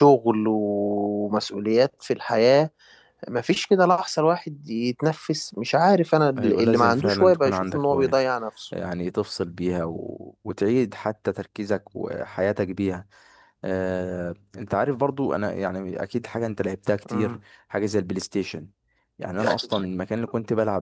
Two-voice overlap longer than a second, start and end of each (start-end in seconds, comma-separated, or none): 6.4-8.2